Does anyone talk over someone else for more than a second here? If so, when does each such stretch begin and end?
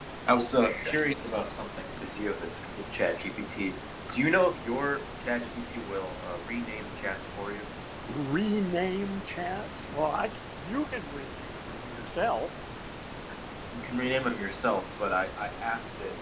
none

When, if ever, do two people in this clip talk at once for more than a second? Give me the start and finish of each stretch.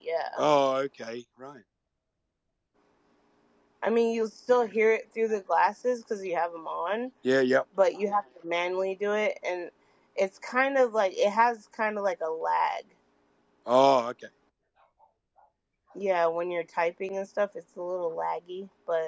none

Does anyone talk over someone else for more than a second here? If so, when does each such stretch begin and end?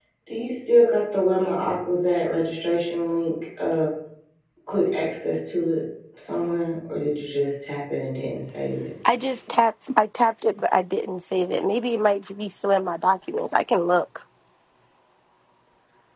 none

